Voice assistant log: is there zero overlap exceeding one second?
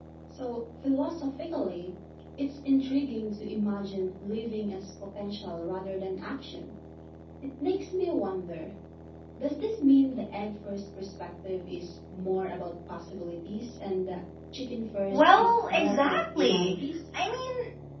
No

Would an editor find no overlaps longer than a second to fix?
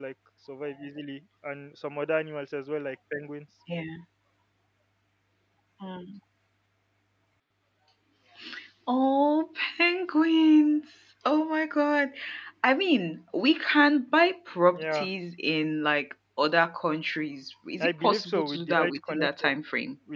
No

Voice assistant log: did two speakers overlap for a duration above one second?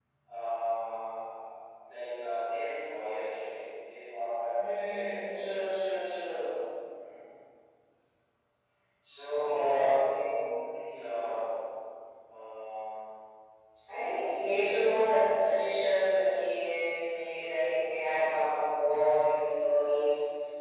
Yes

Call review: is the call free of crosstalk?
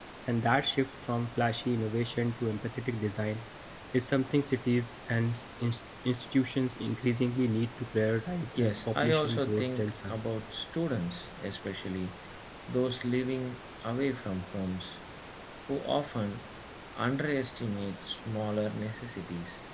No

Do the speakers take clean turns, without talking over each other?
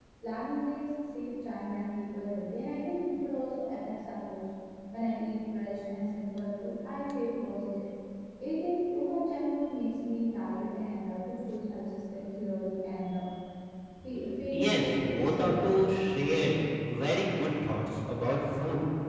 No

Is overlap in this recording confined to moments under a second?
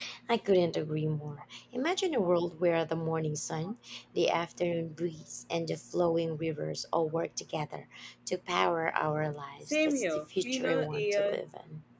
No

